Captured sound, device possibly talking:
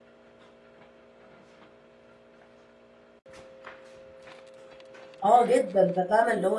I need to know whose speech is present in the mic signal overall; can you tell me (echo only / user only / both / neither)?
user only